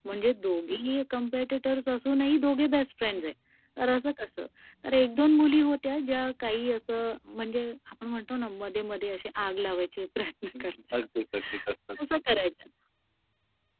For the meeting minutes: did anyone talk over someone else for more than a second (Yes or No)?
No